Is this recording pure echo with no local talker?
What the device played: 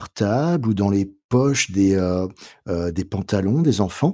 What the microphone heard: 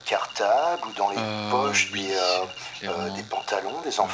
No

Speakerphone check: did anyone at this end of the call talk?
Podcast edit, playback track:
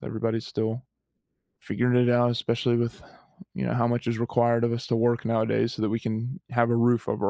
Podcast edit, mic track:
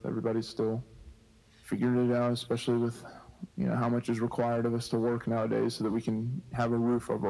No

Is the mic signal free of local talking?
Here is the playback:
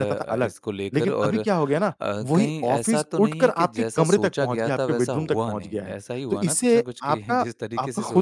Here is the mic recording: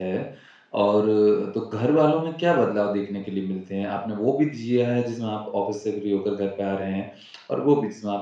No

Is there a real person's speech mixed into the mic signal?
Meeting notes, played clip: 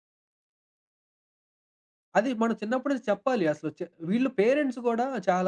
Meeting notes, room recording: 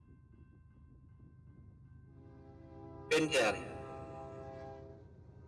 Yes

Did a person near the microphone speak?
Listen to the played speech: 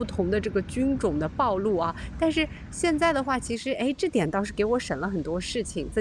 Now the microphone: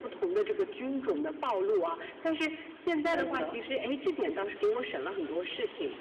Yes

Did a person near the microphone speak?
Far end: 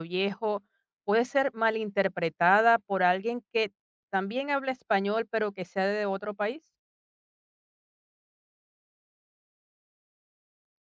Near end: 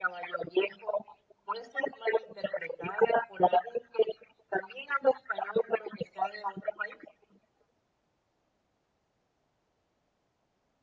No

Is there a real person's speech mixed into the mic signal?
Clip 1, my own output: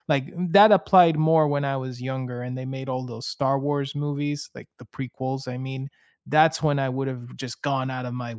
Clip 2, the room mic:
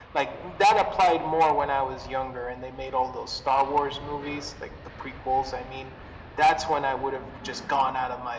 No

